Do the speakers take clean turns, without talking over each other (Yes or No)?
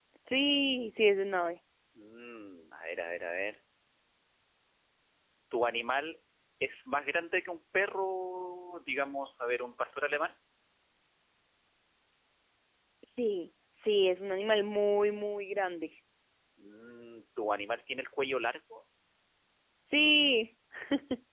Yes